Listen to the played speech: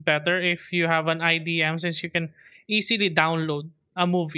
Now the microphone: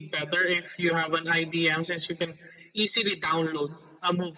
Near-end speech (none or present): none